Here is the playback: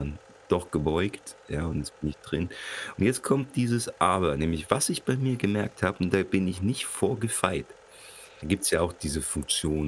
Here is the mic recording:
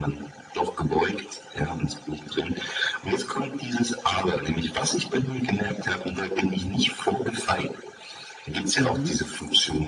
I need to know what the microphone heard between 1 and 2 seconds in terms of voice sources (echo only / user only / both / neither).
echo only